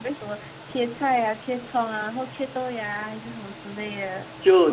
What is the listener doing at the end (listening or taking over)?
taking over